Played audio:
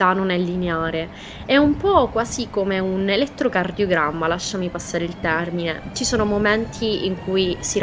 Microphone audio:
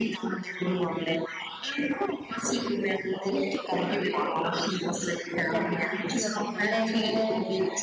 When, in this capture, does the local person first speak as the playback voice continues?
5.5 s

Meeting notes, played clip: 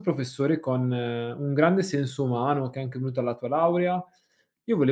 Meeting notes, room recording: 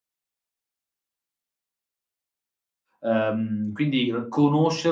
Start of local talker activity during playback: 3.0 s

